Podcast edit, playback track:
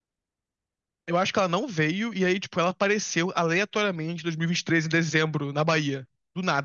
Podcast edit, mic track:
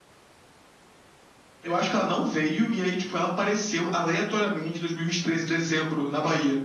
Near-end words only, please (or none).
none